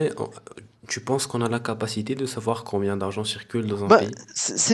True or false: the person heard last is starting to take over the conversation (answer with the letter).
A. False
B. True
B